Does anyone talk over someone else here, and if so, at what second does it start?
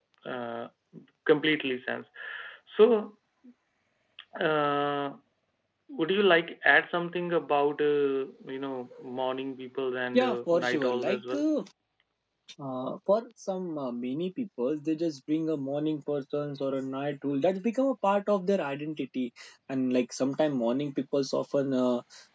10.1 s

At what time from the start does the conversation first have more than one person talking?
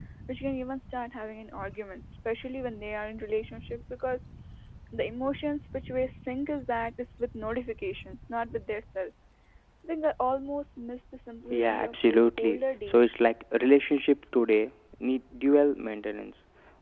11.5 s

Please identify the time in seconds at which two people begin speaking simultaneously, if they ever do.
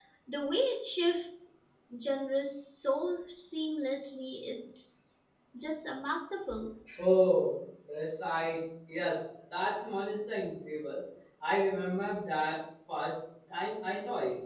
none

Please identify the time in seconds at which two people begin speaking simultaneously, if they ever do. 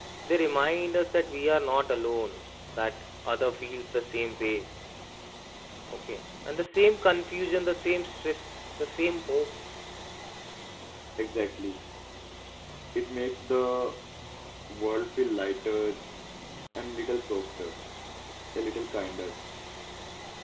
none

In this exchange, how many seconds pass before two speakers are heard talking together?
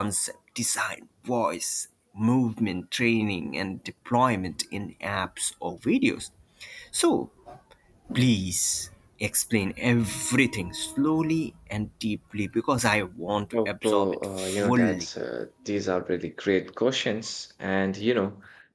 13.5 s

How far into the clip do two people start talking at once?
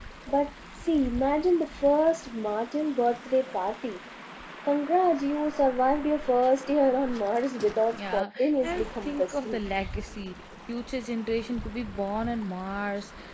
7.9 s

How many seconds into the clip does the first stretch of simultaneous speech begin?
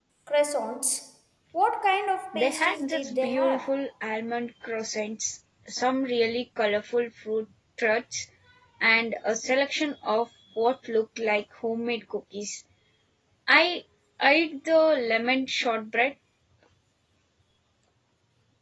2.3 s

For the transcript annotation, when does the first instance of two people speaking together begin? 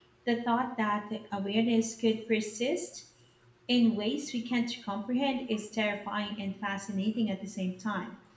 none

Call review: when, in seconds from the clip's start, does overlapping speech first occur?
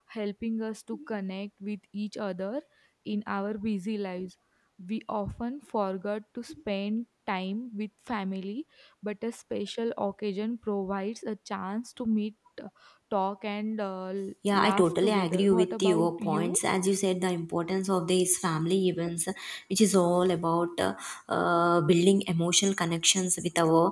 14.5 s

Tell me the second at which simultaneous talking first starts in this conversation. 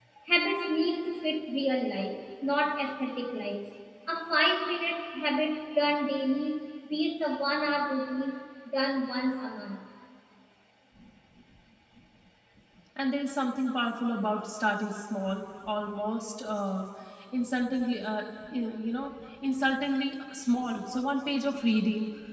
none

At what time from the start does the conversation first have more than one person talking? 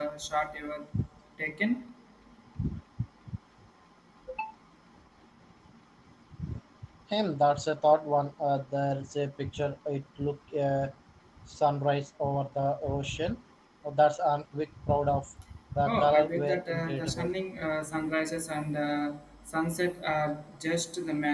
15.8 s

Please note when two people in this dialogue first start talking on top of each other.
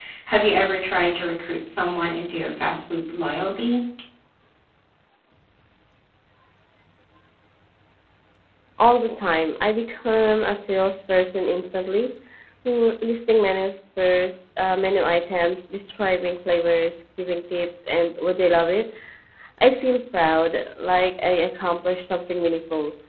none

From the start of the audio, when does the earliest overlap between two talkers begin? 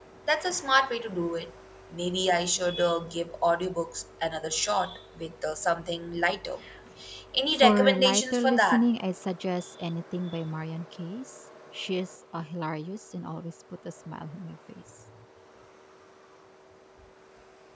7.6 s

